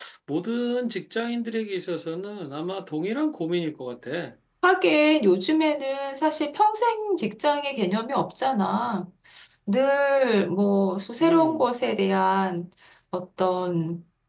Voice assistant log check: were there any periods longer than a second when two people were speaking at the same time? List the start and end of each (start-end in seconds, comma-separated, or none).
none